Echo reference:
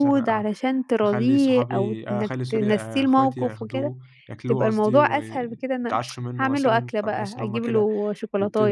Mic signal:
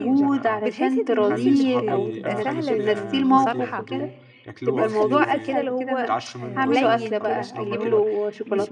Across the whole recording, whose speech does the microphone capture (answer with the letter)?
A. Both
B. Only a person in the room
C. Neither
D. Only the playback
A